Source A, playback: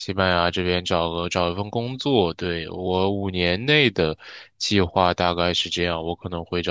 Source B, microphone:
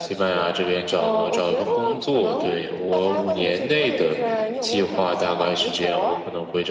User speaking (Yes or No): Yes